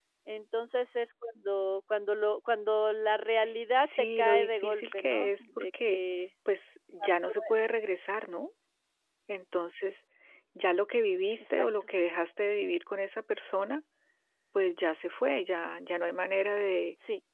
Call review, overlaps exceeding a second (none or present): present